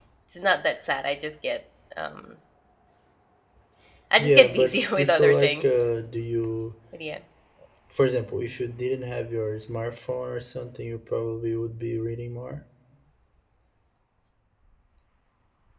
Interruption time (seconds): 4.2 s

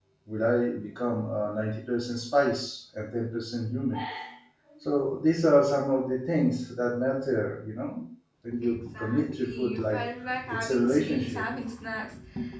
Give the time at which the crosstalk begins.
8.5 s

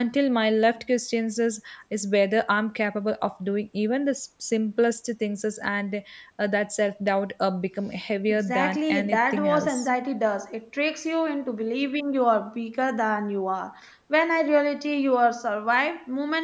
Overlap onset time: 8.3 s

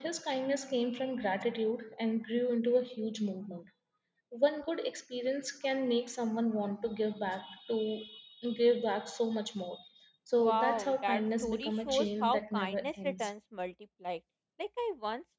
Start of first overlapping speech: 10.3 s

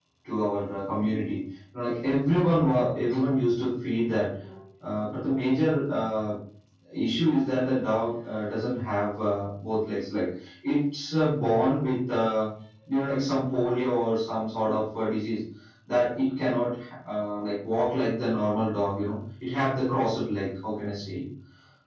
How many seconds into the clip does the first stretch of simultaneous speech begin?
none

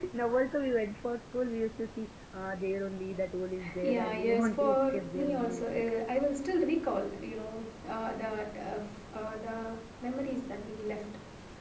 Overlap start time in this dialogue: 3.6 s

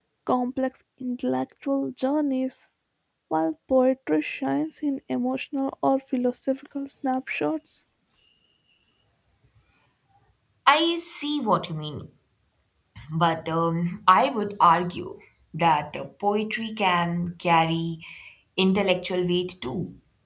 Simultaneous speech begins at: none

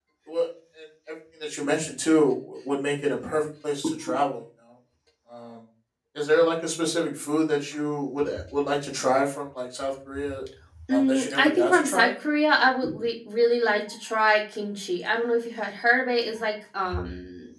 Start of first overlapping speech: 10.9 s

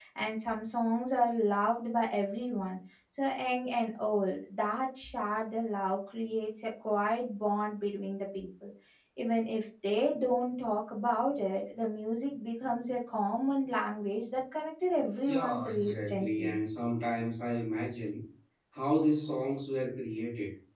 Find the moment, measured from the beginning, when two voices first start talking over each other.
15.3 s

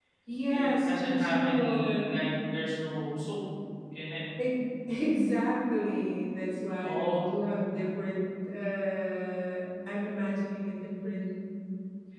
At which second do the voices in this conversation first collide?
0.5 s

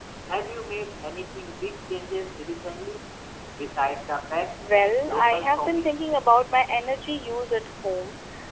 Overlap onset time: 4.6 s

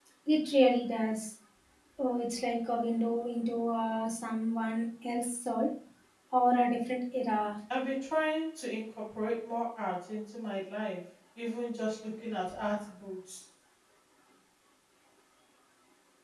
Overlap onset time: none

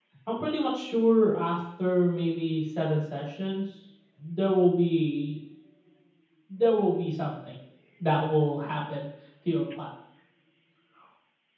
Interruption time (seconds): none

